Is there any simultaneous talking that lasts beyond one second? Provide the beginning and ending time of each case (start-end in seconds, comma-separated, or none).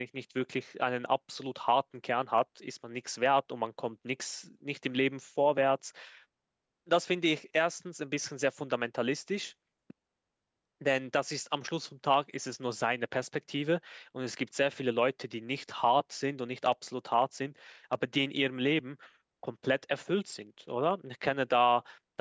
none